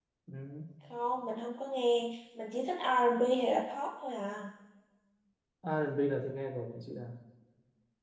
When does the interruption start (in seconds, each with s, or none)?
none